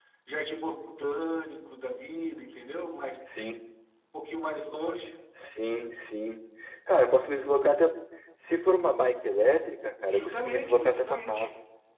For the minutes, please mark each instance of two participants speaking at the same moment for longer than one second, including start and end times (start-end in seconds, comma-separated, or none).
10.1-11.5